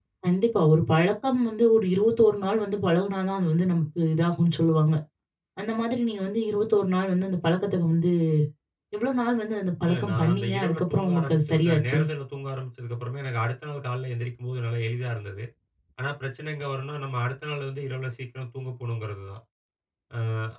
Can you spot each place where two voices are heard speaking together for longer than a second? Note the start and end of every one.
9.9-12.0

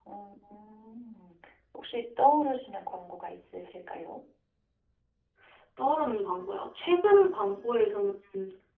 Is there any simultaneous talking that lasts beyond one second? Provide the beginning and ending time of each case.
none

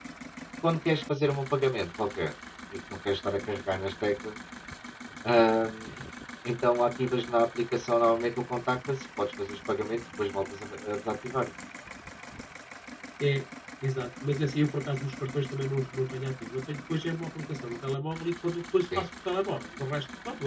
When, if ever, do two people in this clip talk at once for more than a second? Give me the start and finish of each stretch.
none

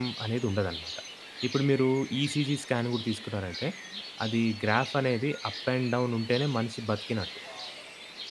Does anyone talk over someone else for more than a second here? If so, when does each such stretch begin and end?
none

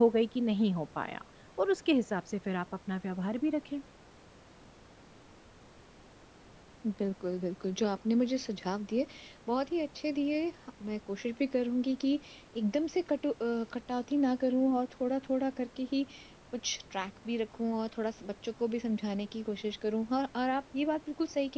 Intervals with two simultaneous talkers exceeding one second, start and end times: none

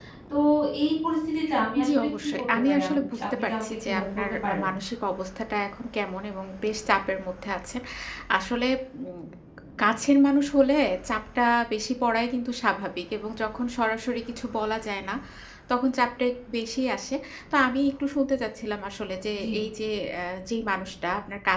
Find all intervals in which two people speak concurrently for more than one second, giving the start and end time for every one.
1.8-4.6

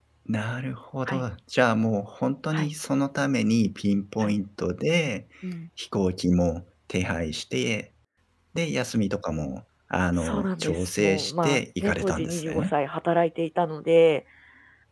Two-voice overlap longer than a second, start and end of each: 10.2-12.7

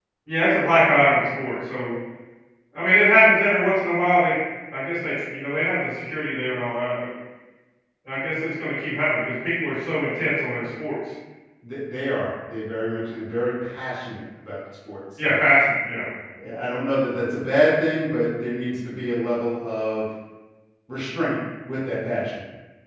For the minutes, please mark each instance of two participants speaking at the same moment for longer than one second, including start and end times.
none

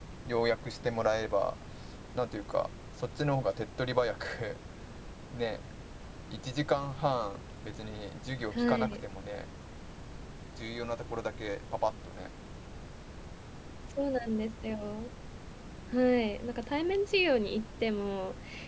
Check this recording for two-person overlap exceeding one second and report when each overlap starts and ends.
none

